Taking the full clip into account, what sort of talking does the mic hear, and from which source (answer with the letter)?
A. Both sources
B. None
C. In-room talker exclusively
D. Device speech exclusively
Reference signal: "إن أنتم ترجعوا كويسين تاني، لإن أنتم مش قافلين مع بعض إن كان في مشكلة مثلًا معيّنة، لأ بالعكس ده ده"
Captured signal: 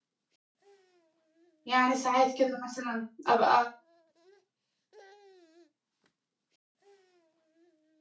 C